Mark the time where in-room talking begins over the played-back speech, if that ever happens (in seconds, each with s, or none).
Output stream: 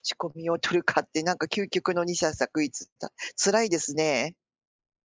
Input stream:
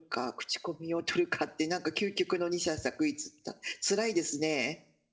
none